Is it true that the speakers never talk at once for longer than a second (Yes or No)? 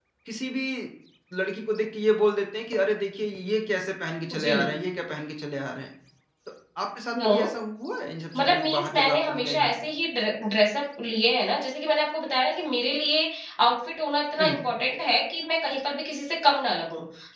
No